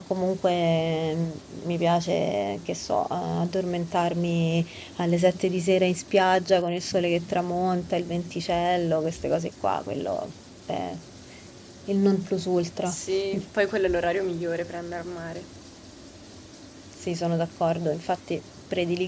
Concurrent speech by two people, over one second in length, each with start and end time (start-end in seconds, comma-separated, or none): none